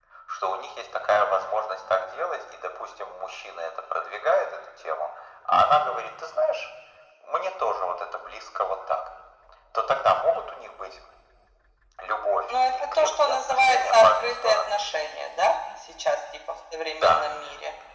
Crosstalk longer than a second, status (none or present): present